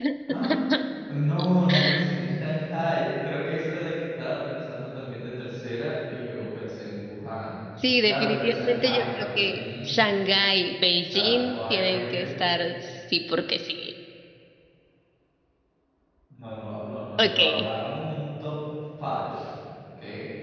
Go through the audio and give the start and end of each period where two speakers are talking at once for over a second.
8.0-10.0, 11.0-12.3

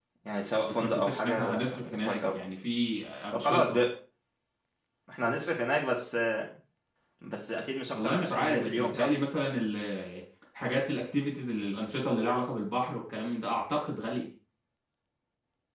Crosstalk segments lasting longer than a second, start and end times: 0.7-2.4, 7.9-9.1

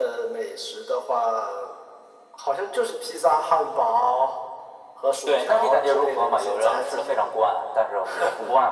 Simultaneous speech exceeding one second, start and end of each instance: 5.3-7.2

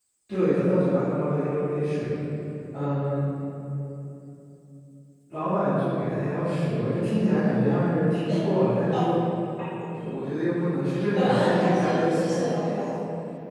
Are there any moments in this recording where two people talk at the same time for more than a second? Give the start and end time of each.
11.2-12.4

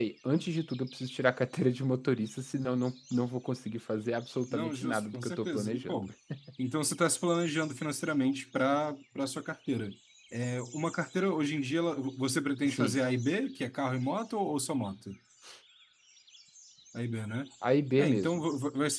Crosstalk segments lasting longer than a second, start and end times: 4.5-6.0

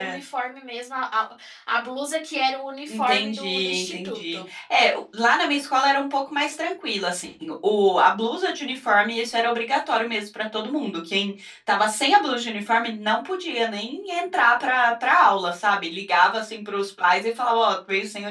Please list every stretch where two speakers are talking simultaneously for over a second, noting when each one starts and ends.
2.9-4.4

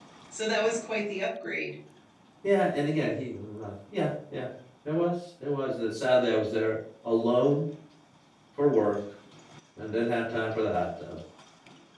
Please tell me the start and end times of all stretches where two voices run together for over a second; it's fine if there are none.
none

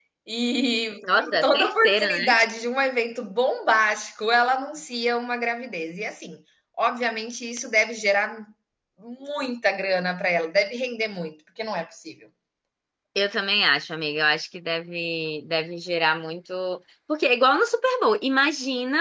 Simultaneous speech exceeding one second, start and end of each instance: 1.0-2.4

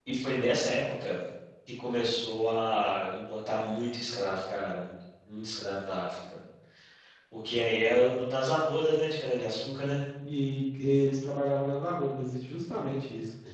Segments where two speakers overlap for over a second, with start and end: none

